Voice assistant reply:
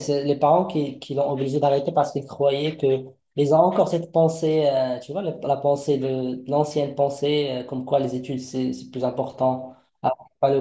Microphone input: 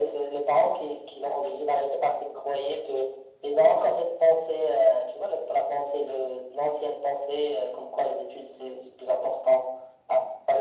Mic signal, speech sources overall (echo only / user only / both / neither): echo only